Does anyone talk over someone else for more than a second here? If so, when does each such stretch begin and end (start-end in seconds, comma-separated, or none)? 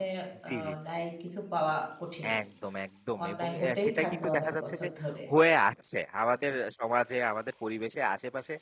3.2-4.9